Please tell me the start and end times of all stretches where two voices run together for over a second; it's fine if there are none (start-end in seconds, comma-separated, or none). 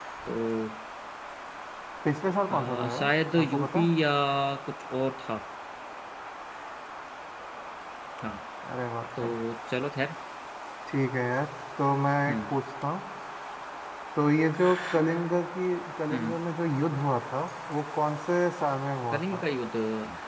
2.5-3.9